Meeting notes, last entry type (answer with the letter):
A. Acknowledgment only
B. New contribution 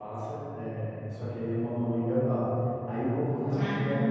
A